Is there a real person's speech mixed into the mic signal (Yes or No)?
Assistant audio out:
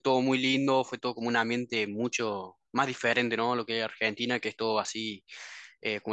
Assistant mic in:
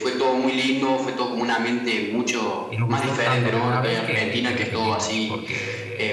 Yes